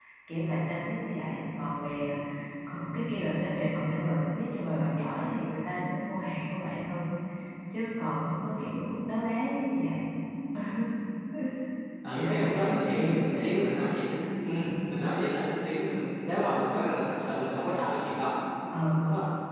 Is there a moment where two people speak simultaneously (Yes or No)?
Yes